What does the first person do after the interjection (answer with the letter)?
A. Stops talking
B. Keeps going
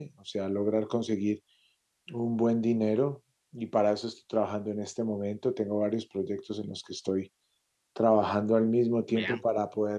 B